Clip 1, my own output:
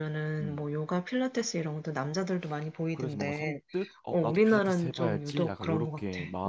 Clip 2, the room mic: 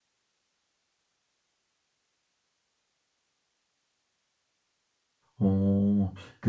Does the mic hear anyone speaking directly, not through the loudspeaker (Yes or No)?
Yes